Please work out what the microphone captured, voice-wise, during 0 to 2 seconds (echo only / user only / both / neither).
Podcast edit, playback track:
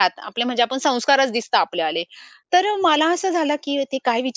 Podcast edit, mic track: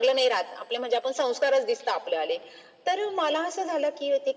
echo only